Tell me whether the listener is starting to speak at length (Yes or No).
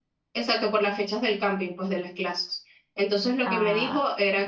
No